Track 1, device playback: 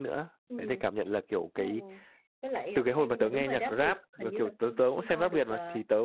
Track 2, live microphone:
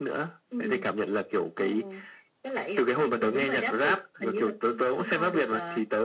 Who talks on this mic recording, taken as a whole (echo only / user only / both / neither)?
echo only